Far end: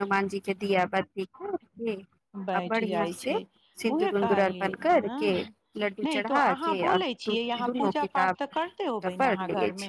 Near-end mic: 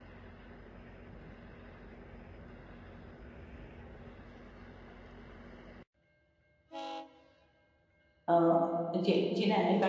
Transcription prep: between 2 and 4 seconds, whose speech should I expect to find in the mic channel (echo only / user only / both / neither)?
neither